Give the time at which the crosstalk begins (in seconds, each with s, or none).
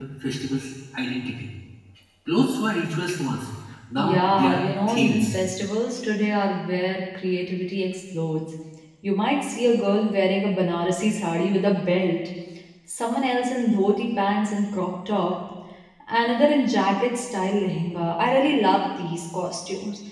4.0 s